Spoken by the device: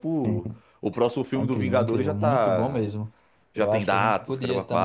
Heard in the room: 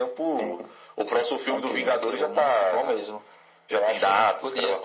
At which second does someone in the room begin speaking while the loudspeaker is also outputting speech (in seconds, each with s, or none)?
none